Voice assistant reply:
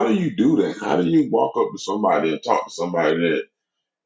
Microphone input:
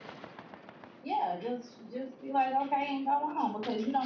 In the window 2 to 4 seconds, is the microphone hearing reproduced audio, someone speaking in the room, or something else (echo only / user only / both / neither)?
user only